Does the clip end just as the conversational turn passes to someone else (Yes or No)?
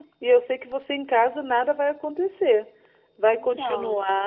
No